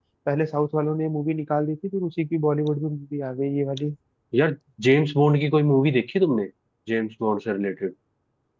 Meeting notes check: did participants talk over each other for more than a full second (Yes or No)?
No